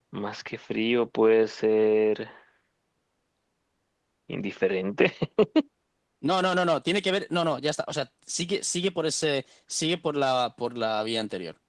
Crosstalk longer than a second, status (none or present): none